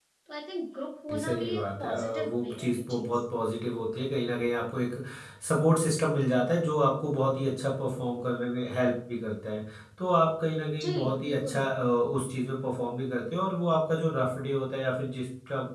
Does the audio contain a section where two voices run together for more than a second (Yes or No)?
Yes